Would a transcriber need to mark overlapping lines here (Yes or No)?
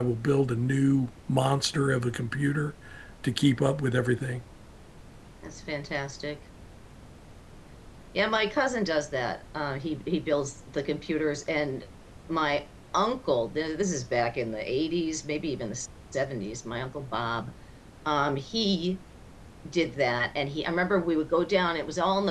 No